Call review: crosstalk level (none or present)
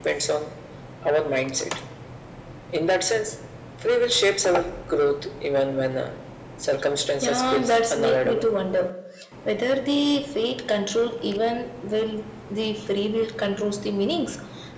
present